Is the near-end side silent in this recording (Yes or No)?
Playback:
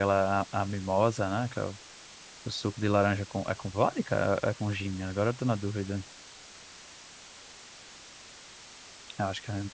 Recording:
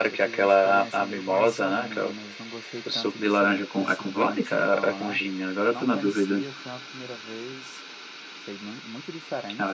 No